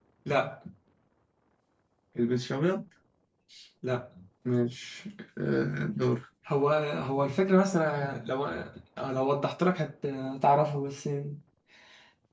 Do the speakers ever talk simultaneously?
No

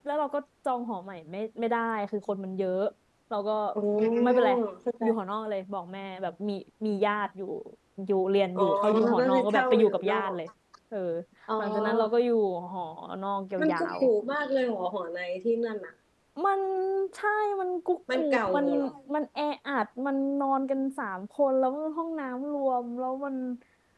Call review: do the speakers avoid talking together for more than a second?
No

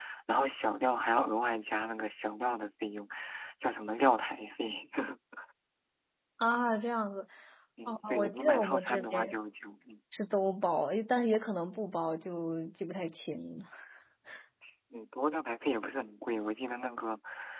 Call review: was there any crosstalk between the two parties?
Yes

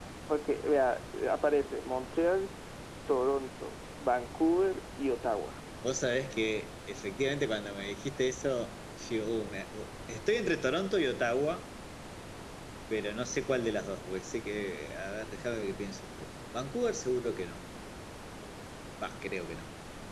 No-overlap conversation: Yes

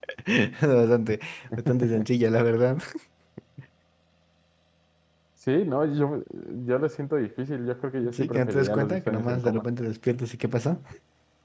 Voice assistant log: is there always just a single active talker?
No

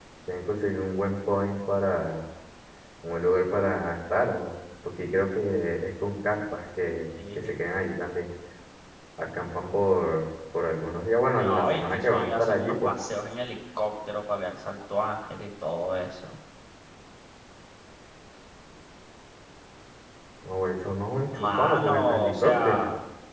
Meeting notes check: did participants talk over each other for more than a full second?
Yes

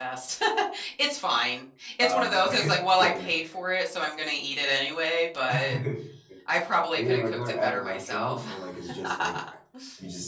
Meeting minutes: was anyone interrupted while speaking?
Yes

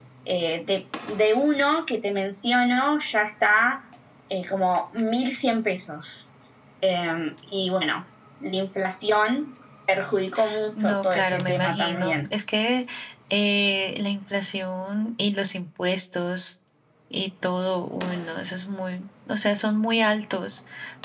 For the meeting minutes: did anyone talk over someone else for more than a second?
Yes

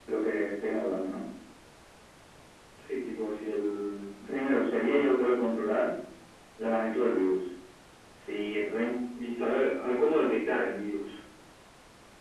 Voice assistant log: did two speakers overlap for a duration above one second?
No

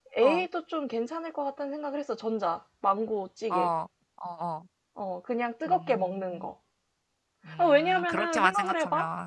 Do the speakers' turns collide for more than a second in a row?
Yes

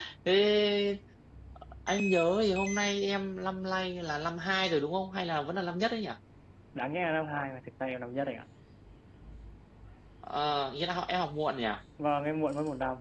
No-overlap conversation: Yes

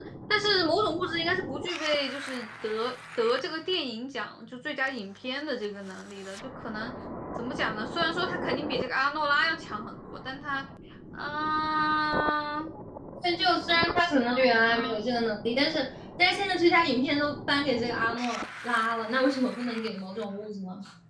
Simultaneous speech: Yes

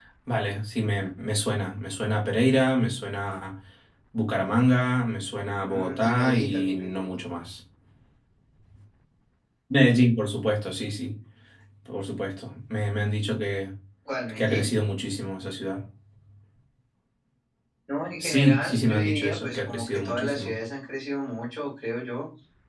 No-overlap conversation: No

